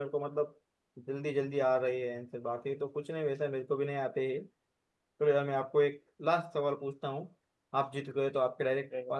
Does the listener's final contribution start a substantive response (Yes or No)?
No